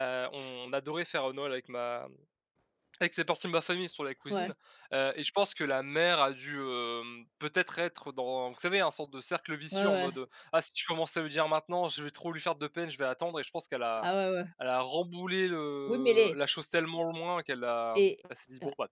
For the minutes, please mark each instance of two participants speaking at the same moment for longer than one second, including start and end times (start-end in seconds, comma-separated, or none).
none